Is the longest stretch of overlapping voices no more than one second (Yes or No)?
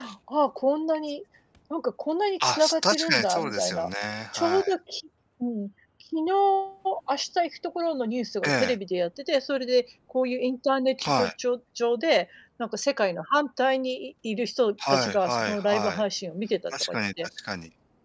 No